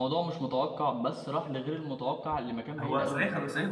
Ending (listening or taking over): taking over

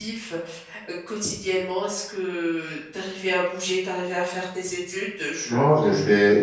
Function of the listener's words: taking over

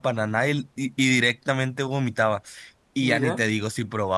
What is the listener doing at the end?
listening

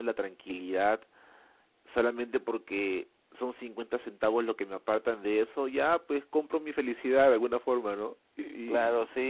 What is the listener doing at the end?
taking over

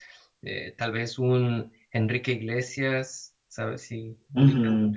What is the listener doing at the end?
taking over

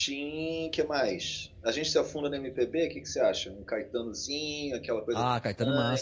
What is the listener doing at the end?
taking over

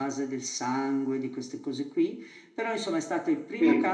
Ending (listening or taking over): listening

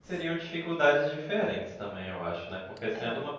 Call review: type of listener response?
listening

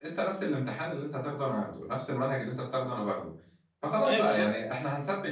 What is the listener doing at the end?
listening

